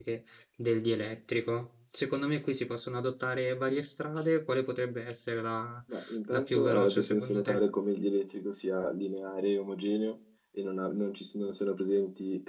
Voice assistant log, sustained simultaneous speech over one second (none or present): present